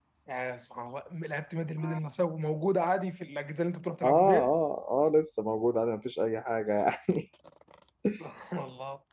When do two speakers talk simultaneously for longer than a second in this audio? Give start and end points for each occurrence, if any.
none

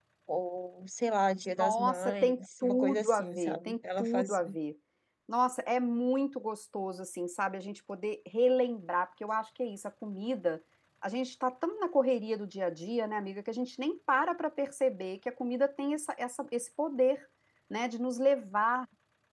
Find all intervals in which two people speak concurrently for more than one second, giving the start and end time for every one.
1.6-4.5

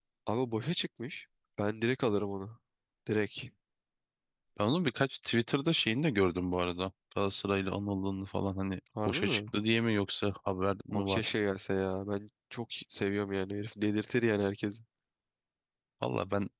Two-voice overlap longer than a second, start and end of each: none

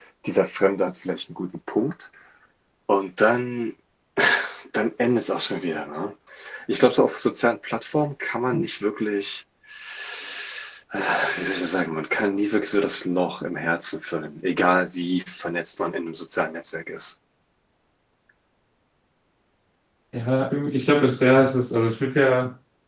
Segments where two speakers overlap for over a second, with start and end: none

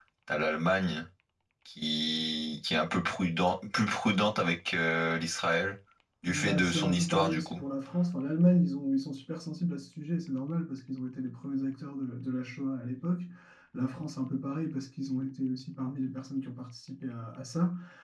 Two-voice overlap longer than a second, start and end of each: 6.2-7.6

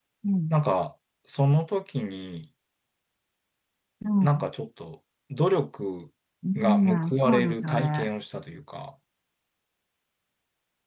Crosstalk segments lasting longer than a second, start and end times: 6.5-8.1

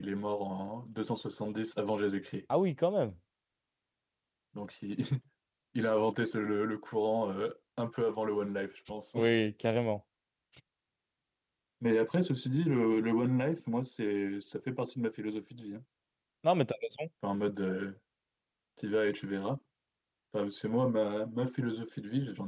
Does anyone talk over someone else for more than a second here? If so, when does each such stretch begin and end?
none

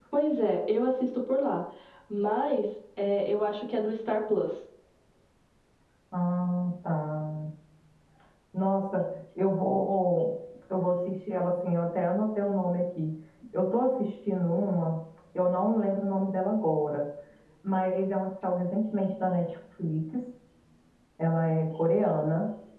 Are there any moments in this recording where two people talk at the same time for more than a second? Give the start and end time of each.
none

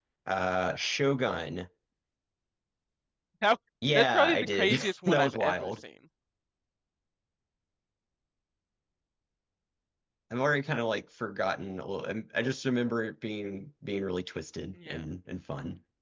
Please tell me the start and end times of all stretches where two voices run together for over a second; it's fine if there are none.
3.9-5.7

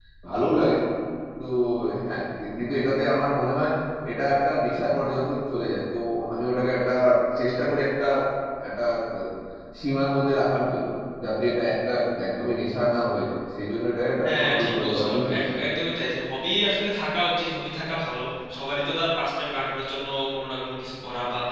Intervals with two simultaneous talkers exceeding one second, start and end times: 14.2-15.7

